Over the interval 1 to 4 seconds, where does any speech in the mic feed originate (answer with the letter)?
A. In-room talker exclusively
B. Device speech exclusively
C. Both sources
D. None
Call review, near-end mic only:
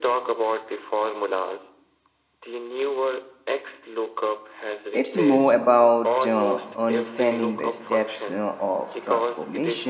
B